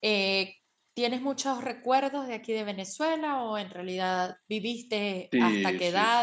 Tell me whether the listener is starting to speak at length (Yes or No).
Yes